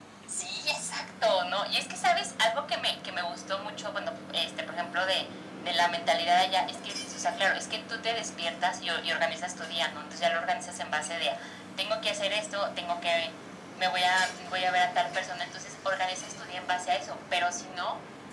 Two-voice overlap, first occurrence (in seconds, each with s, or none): none